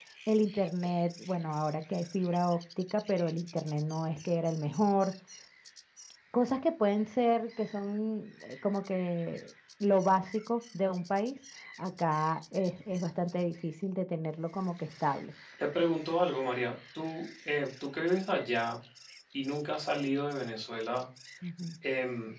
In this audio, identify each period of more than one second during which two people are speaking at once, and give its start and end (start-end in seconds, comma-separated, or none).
none